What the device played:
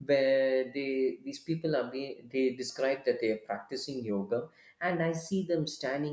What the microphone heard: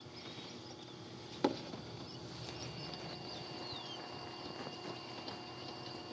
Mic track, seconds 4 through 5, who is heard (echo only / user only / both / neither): neither